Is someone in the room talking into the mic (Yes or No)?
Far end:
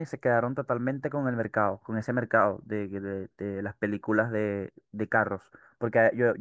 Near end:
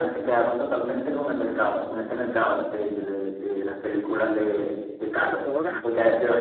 Yes